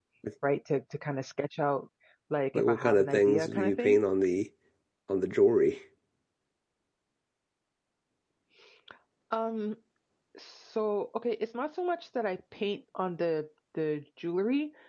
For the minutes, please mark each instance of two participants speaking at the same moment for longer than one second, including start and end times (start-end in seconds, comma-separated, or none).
2.5-4.0